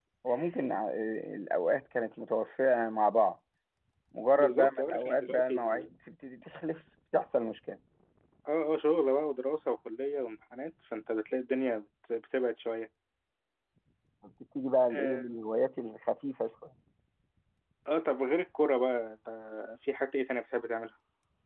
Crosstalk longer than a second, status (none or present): present